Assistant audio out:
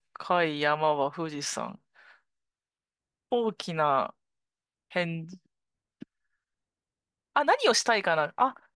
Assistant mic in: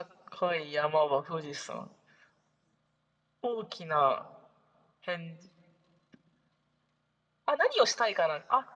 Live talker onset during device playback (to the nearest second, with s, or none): none